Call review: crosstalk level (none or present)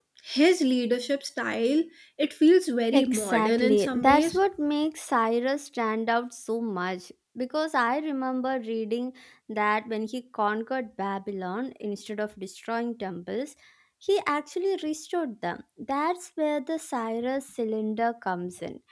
present